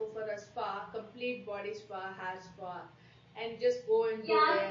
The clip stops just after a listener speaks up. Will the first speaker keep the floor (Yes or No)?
No